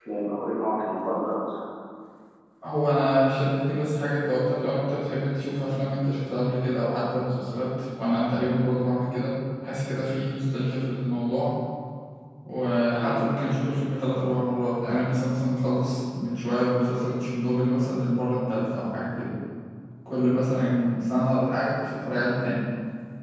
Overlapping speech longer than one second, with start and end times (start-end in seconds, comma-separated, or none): none